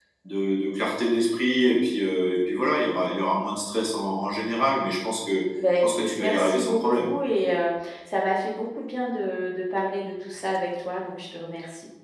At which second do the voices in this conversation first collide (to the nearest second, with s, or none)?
6 s